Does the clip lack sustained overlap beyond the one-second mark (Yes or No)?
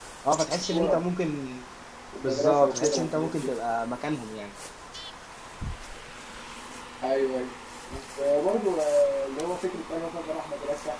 No